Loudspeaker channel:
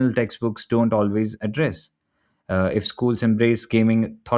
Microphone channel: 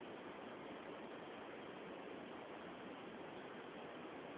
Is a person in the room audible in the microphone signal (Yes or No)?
No